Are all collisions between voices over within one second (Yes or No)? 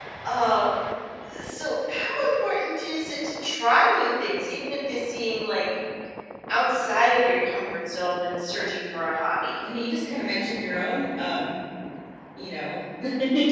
Yes